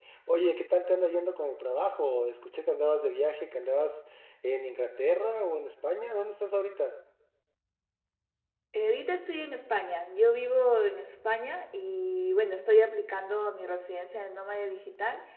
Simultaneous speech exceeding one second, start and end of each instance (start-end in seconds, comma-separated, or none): none